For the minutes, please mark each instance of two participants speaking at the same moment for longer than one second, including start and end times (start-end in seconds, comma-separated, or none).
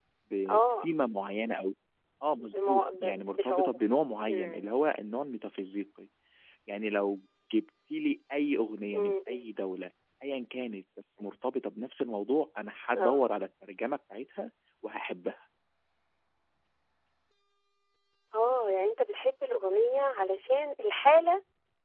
2.4-3.8